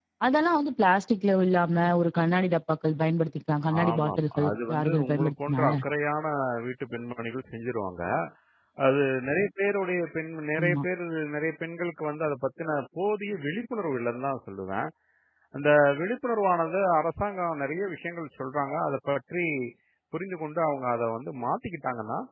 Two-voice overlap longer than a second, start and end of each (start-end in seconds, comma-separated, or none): 3.8-5.7